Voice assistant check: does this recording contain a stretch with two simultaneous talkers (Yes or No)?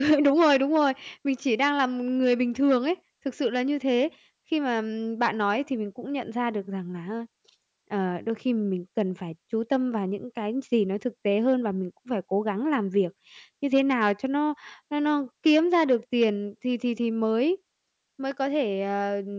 No